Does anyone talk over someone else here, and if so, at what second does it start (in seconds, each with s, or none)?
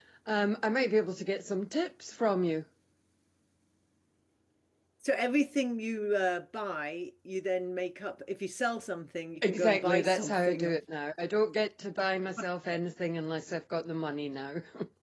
9.4 s